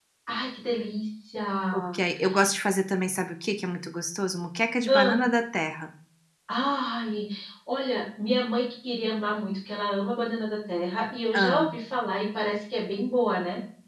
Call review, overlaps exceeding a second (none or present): none